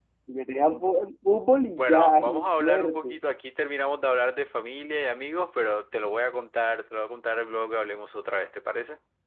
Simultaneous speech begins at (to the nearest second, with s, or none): 2 s